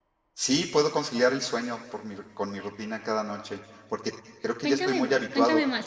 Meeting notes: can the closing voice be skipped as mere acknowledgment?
No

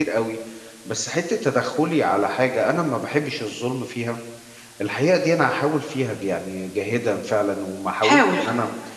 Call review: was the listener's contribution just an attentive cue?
Yes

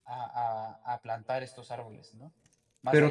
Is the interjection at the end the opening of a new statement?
Yes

